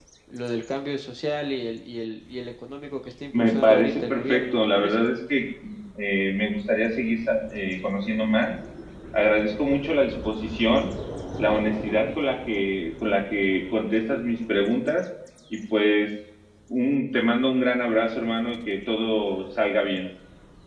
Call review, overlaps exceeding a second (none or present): present